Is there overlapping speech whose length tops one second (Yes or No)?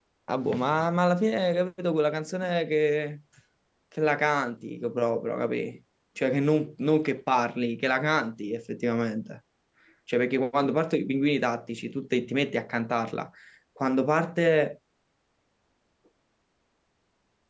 No